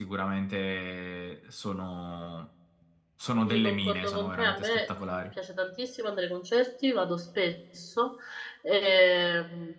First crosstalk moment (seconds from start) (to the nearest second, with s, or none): 3 s